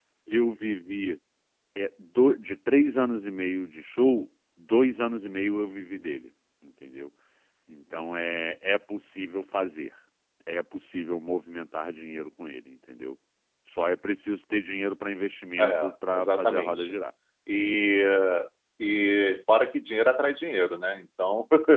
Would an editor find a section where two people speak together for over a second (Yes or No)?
Yes